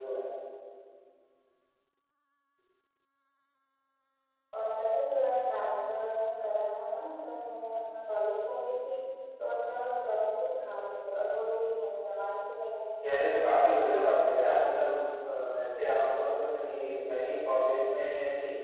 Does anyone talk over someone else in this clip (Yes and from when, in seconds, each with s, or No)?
Yes, from 13.0 s